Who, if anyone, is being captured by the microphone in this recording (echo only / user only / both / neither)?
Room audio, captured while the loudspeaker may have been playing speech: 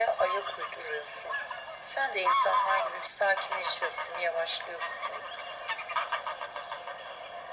echo only